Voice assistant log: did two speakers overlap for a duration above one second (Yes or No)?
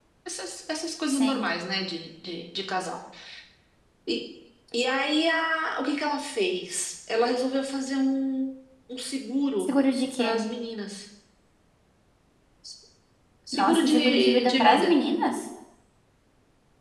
Yes